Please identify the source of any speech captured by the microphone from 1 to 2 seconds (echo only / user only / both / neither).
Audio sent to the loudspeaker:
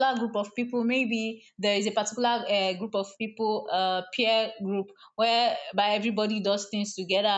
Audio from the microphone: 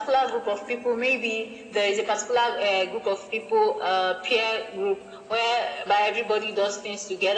echo only